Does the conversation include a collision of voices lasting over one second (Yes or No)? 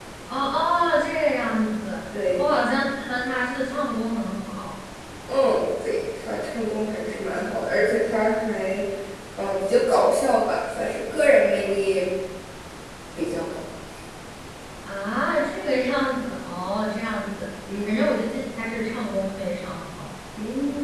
No